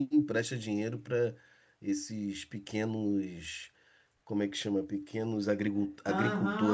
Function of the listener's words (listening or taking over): taking over